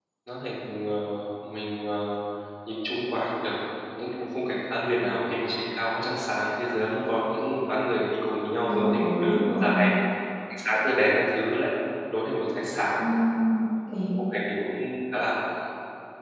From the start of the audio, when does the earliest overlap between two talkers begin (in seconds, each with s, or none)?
8.7 s